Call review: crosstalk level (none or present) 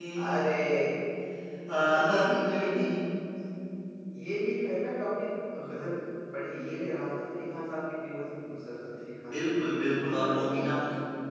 present